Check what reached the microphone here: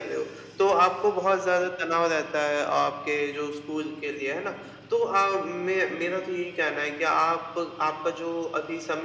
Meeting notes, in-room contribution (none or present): none